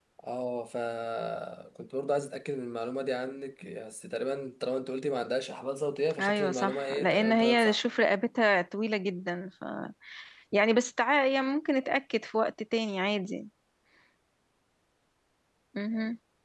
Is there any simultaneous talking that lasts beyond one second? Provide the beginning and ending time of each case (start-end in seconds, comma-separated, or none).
6.2-7.8